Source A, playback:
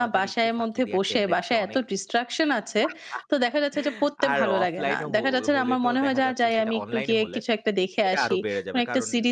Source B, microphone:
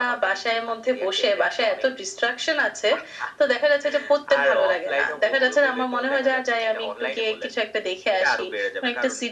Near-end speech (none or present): none